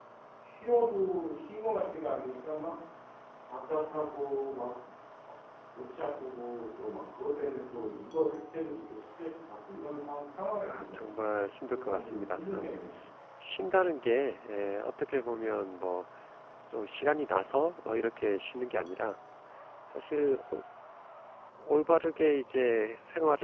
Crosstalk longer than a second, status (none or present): present